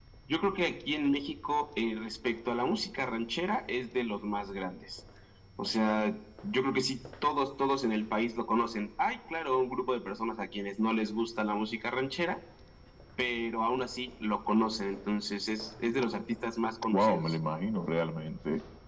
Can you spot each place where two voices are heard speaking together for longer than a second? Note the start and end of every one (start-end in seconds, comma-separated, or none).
none